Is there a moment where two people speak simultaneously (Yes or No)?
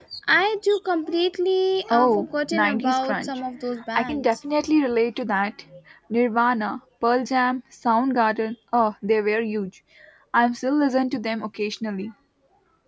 Yes